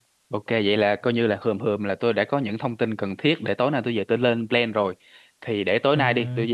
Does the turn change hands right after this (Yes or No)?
No